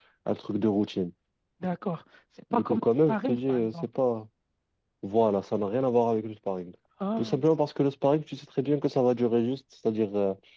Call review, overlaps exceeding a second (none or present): present